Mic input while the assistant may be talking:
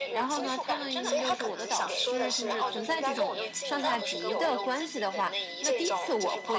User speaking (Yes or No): Yes